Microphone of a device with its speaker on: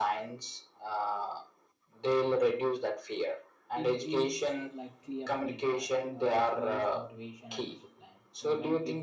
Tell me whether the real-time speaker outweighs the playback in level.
No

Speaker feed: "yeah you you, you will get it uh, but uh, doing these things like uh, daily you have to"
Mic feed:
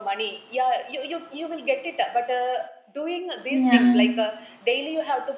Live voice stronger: Yes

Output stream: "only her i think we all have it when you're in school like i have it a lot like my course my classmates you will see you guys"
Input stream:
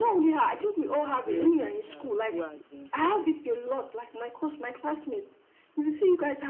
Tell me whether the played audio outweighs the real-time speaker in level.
Yes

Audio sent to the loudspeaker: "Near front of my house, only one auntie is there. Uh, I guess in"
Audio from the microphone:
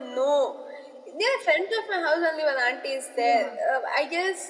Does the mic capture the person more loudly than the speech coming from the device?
No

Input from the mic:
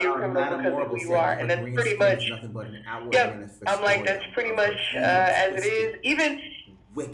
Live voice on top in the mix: No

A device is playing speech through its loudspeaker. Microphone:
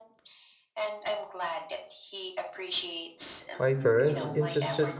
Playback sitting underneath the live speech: Yes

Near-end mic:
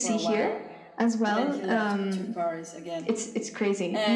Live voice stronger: No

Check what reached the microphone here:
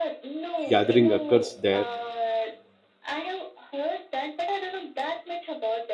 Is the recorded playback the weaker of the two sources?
Yes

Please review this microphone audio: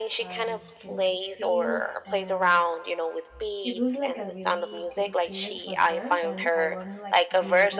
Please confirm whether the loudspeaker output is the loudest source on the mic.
Yes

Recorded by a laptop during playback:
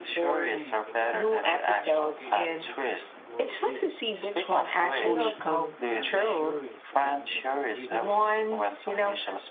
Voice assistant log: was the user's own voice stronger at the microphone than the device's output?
No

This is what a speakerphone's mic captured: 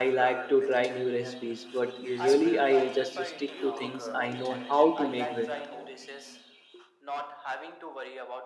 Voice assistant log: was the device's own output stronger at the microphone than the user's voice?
No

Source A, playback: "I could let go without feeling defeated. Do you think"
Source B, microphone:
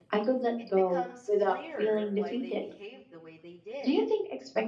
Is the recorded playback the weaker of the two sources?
No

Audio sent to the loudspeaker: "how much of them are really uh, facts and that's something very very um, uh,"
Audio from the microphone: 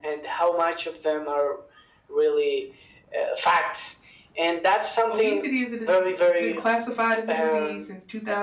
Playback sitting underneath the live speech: No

